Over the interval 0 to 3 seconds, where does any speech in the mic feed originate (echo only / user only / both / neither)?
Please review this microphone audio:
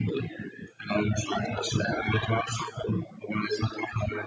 echo only